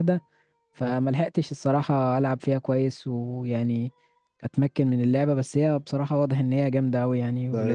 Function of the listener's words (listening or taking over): taking over